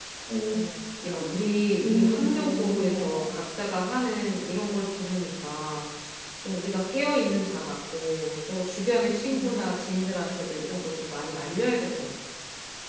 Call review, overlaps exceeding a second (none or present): present